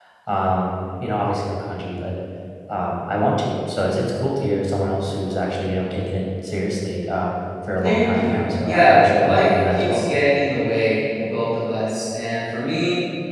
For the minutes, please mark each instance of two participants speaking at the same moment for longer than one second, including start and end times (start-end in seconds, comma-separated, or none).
7.8-10.0